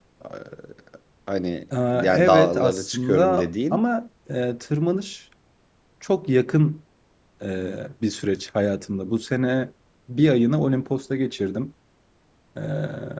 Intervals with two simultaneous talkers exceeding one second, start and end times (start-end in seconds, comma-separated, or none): 1.9-3.8